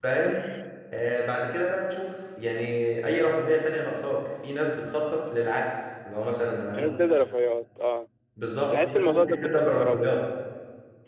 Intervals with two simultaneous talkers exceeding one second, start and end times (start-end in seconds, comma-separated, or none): 8.7-10.1